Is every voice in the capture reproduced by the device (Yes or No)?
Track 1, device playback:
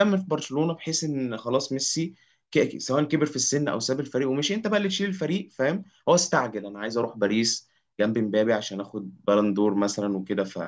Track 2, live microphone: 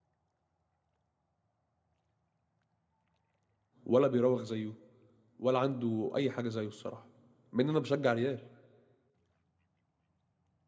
No